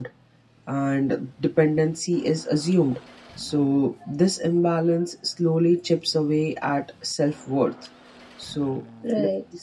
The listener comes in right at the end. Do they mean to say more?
No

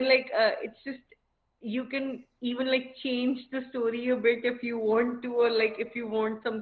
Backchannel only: Yes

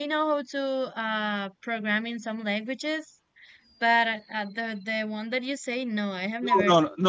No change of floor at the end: No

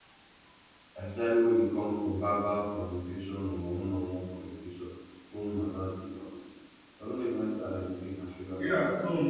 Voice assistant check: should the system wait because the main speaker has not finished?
No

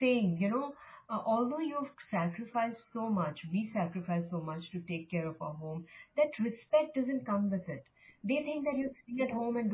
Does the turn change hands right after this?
No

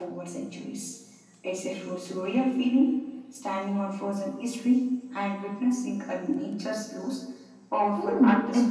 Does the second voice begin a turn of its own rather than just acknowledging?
Yes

